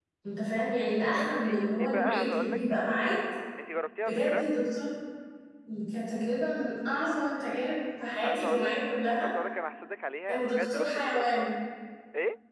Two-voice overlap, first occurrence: 1 s

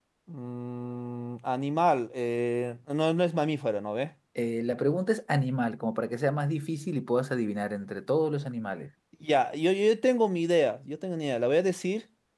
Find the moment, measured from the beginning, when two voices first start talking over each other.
none

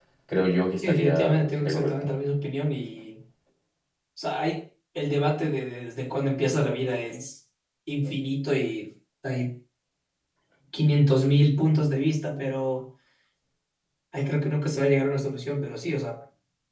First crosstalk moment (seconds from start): 1 s

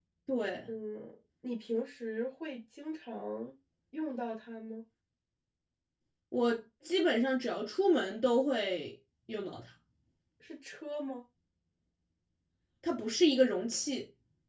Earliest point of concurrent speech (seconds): none

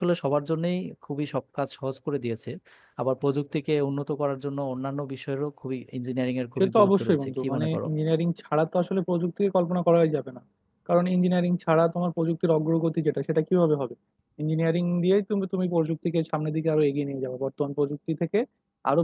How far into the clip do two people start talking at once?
7 s

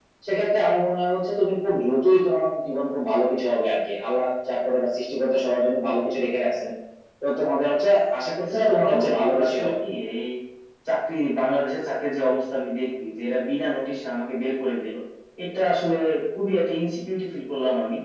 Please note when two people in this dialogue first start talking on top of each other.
8 s

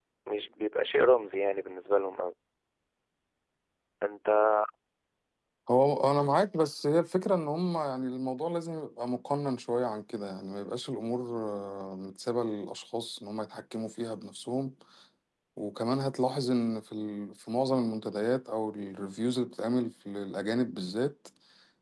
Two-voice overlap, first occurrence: none

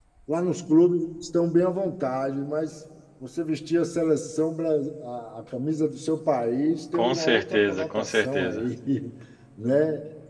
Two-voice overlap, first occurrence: 7 s

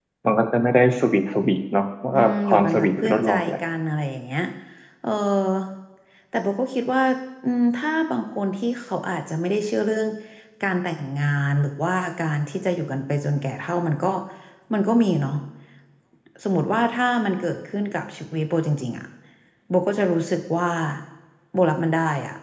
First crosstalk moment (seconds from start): 2 s

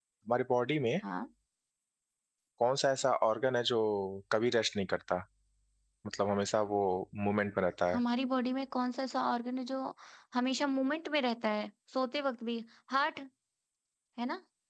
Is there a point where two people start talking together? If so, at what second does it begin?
none

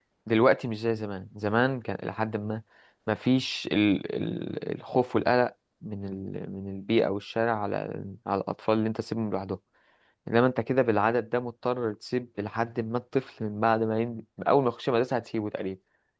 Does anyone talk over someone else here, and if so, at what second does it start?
none

